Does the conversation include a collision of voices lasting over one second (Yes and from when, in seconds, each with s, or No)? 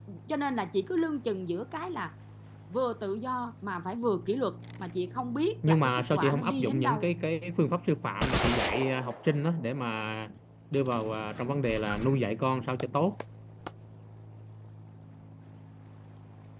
Yes, from 5.6 s